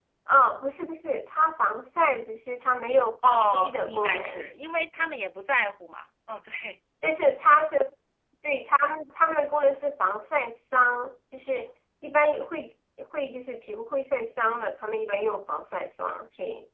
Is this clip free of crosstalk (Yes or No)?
No